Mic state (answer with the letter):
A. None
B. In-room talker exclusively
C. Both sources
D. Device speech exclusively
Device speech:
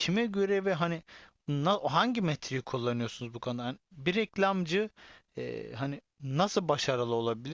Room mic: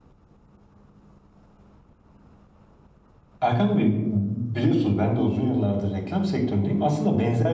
B